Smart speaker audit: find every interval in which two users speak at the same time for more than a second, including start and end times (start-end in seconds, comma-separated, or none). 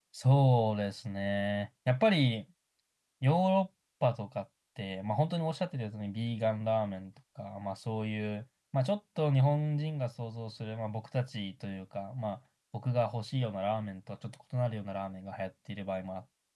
none